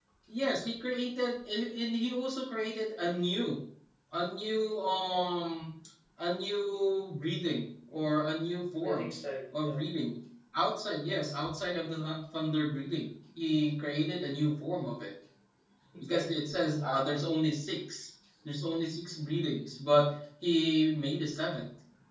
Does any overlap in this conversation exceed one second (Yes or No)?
No